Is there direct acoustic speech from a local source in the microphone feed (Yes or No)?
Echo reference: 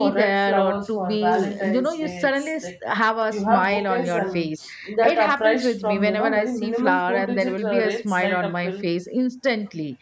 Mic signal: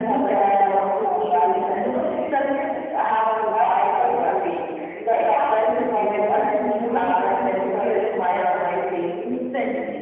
No